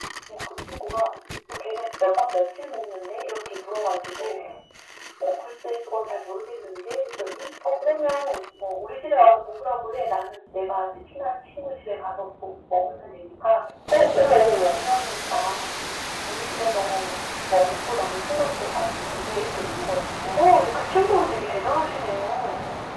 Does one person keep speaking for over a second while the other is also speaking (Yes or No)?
No